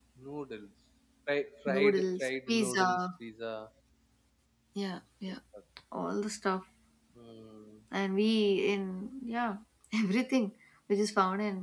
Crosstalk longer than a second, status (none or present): present